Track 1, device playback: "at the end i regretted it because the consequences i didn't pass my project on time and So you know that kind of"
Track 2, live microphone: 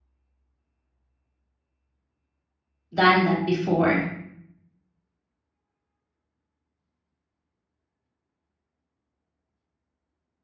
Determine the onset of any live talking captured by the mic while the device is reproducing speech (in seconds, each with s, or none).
2.9 s